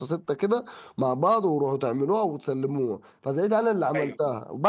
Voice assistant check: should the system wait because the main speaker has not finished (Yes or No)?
Yes